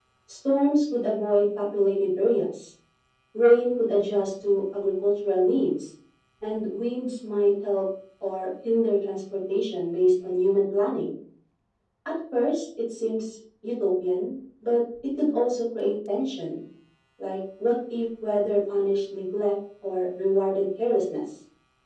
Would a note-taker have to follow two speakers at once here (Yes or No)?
No